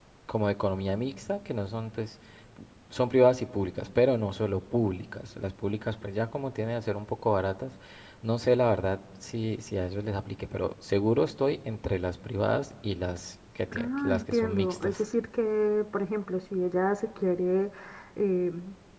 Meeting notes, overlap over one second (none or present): present